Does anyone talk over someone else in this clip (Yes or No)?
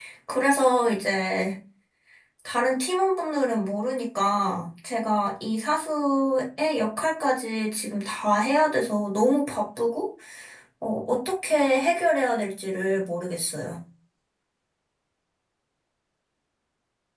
No